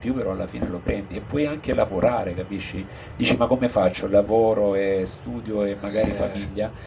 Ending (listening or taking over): listening